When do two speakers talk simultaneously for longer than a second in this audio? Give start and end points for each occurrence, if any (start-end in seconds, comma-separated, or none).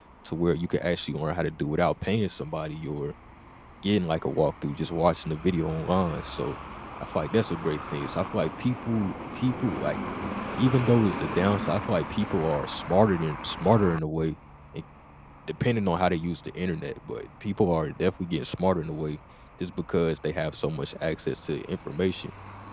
none